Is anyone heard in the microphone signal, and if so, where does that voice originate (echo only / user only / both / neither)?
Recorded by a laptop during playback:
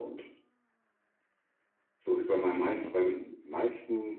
both